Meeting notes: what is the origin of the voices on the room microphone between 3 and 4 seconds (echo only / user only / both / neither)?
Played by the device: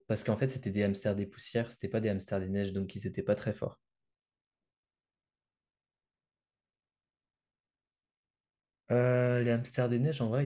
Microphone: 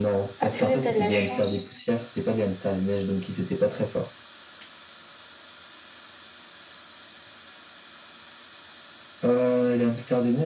echo only